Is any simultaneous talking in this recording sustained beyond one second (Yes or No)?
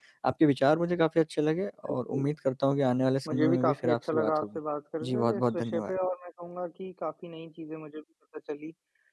Yes